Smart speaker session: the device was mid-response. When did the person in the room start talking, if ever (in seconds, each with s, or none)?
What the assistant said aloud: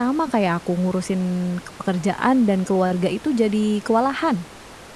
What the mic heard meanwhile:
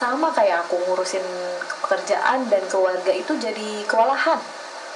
none